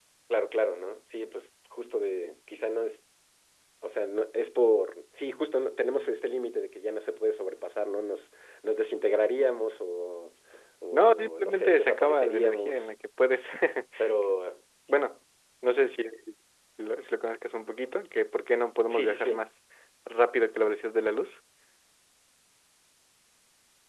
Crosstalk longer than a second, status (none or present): present